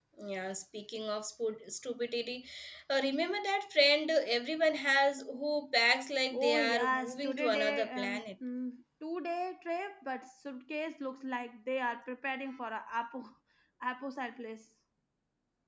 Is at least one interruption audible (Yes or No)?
Yes